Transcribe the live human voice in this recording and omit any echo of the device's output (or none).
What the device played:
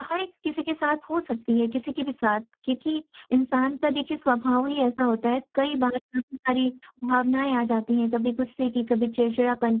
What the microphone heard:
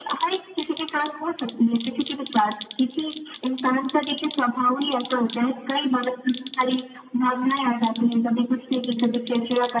none